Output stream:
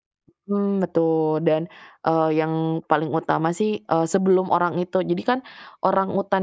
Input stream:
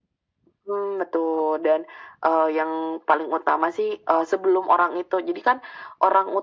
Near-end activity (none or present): none